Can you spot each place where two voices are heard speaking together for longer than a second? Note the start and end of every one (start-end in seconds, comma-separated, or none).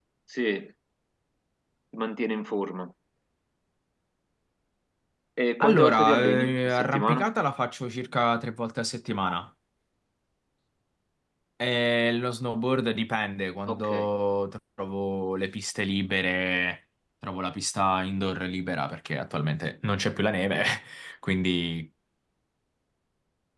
5.6-7.3